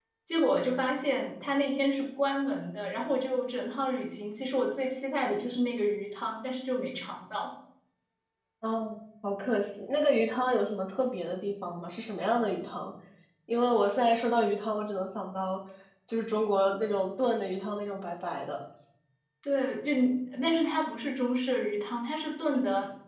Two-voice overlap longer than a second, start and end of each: none

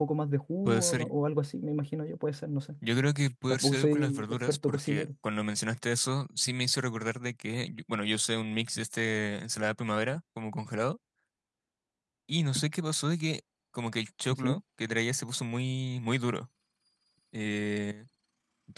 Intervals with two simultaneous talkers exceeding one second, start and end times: 3.5-5.1

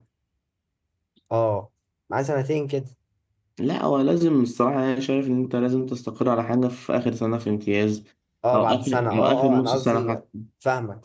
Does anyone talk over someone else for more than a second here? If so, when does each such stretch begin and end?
8.5-10.2

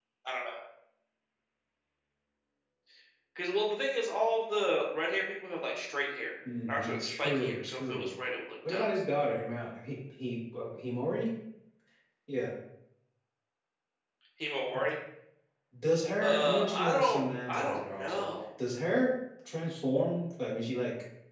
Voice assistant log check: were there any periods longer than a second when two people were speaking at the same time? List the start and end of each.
6.7-8.1, 16.2-18.3

